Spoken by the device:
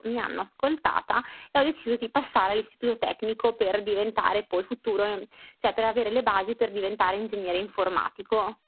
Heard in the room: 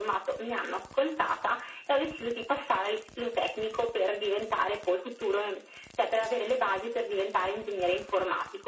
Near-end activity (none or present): none